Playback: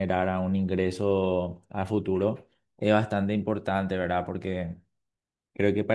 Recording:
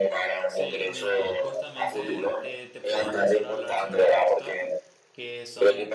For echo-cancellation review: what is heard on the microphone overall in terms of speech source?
both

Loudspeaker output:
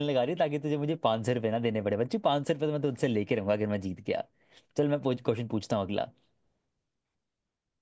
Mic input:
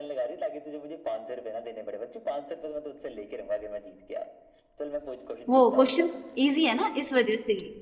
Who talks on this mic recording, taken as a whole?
both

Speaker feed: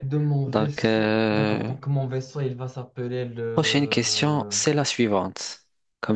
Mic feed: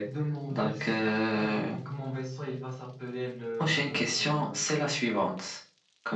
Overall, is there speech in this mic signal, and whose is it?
echo only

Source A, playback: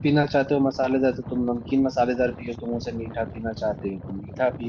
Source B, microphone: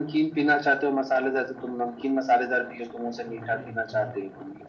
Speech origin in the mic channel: both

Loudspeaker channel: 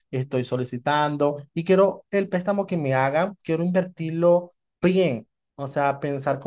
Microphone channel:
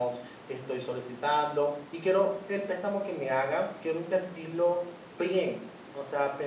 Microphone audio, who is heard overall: echo only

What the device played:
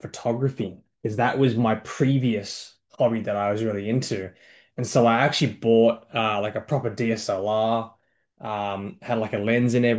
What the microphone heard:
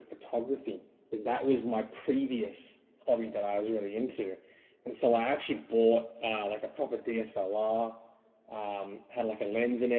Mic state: echo only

